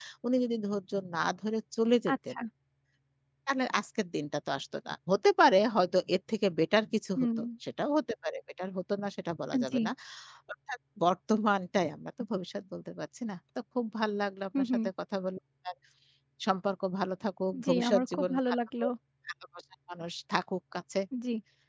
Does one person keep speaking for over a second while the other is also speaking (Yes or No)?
Yes